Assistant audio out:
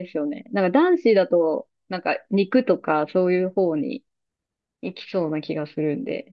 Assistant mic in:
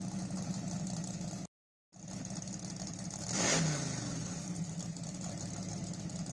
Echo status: none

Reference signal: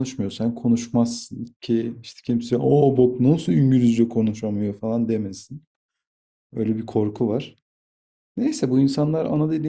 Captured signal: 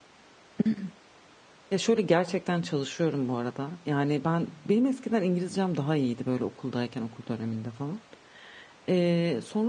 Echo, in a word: none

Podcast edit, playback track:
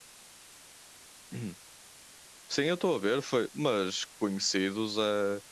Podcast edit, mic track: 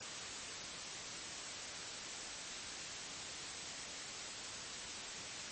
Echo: none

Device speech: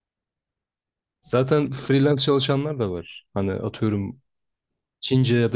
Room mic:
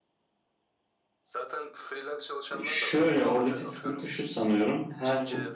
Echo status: present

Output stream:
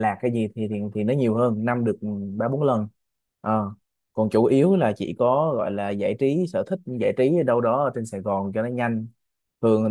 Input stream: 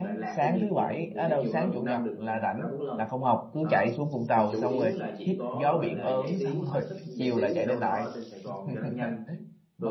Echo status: present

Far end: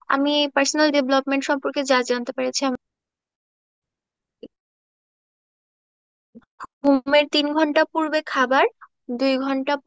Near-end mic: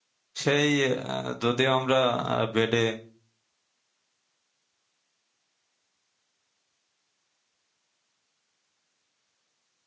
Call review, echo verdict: none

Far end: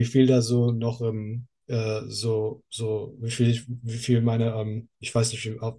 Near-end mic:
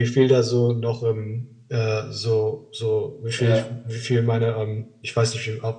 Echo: present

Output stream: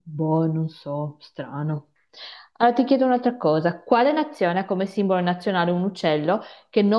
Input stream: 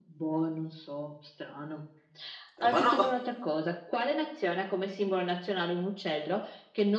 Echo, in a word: present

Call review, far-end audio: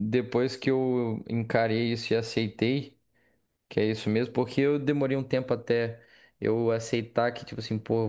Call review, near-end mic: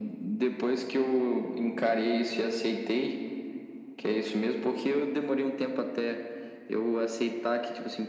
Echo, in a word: present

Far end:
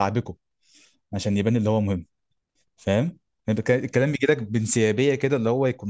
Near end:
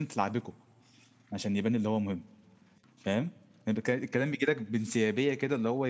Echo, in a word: present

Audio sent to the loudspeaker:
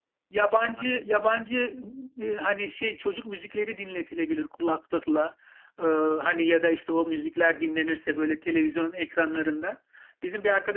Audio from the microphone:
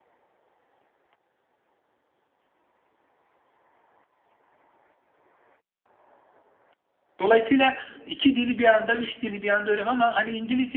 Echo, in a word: none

